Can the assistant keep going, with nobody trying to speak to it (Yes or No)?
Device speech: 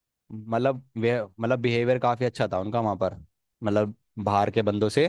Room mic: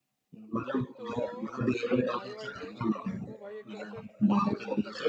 No